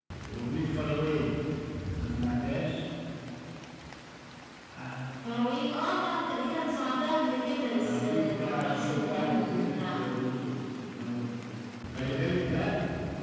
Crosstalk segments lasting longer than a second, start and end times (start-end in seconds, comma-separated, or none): 7.8-10.1